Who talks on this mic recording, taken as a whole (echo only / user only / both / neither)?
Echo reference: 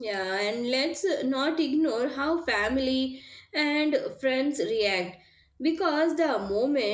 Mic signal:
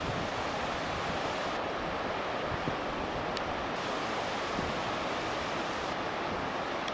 neither